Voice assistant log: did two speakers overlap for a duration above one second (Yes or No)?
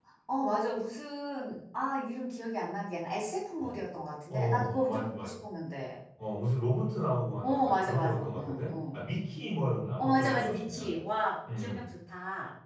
Yes